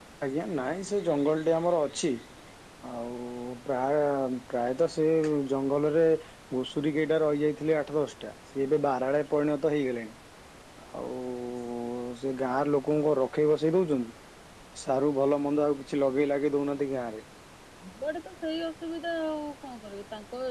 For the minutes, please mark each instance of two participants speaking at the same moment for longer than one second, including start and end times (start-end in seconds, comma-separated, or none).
none